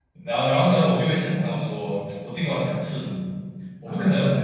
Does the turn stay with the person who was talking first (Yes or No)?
Yes